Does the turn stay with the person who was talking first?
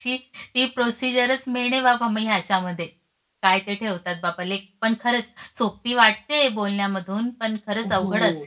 No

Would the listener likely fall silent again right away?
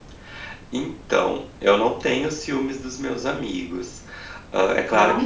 Yes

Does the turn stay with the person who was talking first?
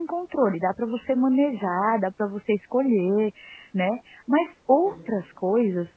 Yes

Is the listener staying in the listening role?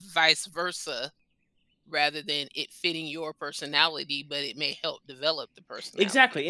No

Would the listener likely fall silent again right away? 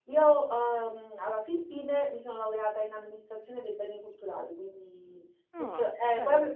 Yes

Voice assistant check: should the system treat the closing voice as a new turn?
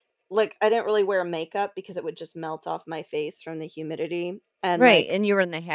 Yes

